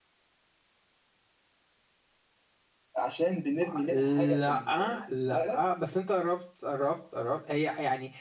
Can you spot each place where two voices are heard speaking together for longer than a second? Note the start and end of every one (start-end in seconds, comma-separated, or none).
3.9-5.6